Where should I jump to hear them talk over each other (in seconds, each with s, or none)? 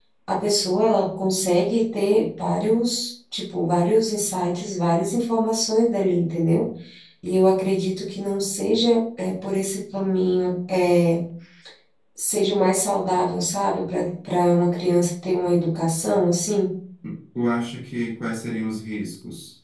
none